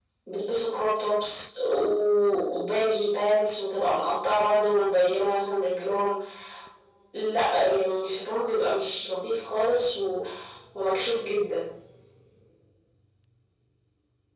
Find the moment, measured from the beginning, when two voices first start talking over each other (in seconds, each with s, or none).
none